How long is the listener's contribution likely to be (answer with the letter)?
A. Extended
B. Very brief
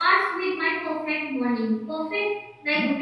B